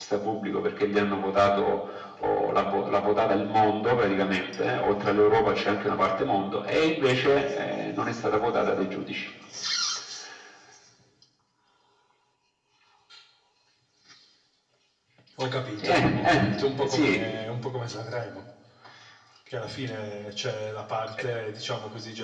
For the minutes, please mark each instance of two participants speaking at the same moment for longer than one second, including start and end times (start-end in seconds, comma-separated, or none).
15.8-17.2